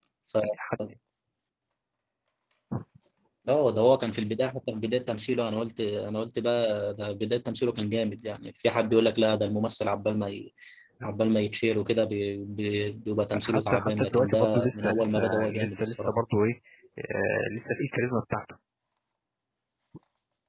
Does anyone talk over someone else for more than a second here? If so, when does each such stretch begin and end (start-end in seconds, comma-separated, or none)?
13.3-16.1